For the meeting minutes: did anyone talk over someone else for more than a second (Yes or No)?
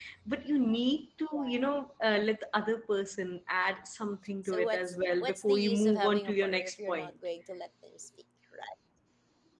Yes